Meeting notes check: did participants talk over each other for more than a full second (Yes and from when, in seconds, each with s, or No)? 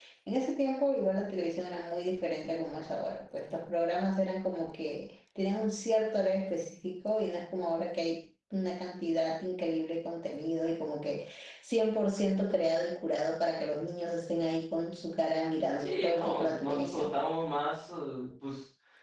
Yes, from 15.8 s